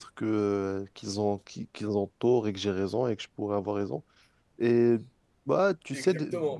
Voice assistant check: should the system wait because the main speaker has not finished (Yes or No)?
No